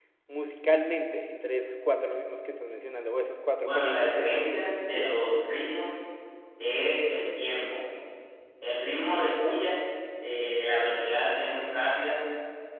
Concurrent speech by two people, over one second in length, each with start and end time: 3.6-5.1

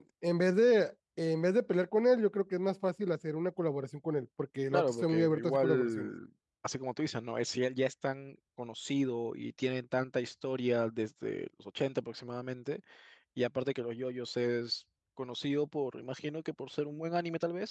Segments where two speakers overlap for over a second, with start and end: 4.7-6.1

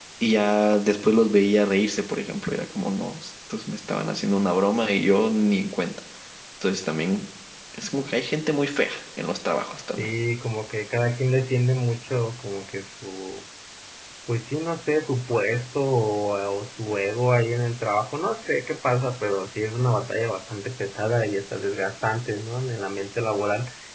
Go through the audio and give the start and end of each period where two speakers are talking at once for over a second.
none

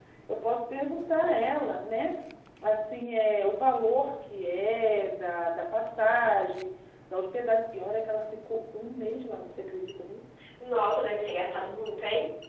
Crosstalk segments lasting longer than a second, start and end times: none

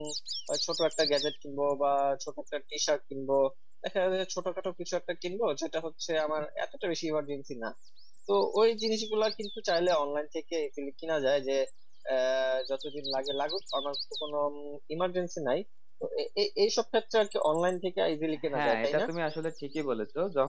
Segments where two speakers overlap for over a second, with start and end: none

